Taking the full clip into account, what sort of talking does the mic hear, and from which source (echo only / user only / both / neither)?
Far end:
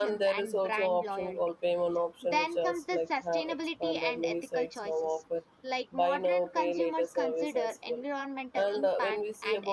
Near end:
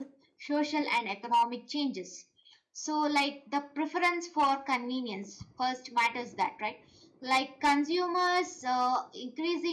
user only